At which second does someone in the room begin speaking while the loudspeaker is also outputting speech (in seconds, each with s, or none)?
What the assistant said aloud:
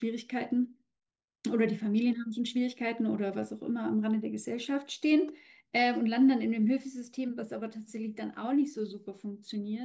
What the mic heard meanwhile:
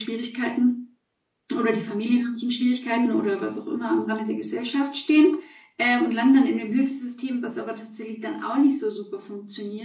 2.9 s